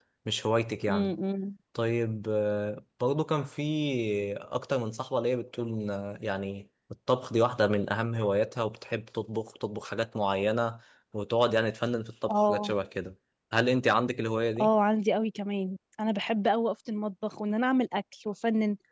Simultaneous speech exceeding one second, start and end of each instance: none

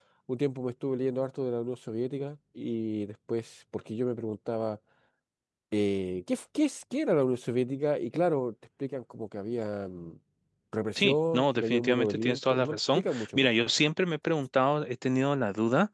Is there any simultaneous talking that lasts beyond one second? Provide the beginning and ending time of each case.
10.9-13.5

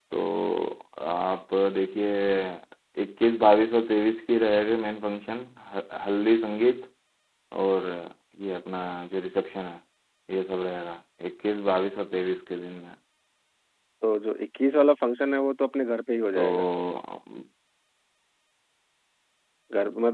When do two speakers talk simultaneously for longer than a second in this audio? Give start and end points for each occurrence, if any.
none

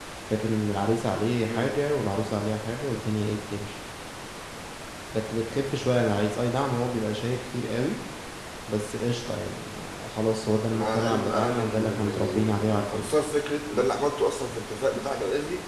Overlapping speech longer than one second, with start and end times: 10.7-13.1

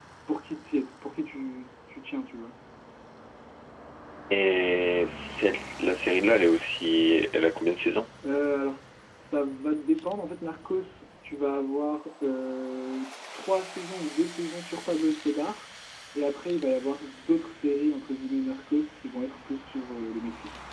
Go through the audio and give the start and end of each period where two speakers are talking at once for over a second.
none

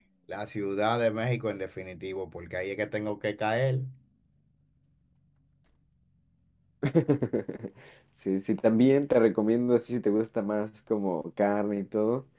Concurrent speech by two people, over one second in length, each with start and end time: none

